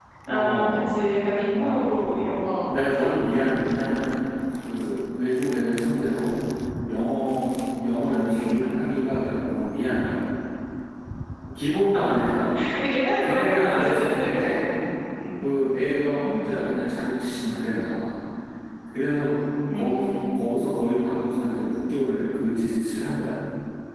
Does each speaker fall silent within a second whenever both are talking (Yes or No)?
No